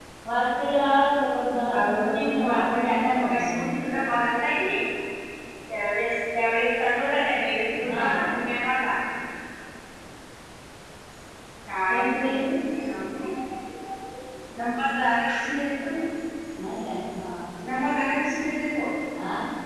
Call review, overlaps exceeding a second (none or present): present